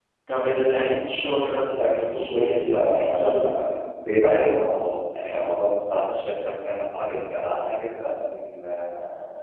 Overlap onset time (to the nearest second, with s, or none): 2 s